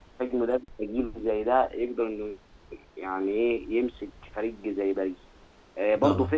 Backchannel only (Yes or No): Yes